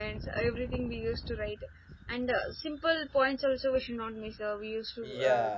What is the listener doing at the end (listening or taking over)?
taking over